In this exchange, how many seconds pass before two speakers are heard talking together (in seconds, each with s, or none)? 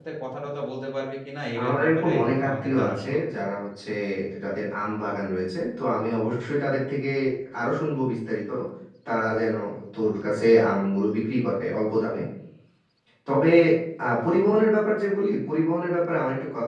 1.5 s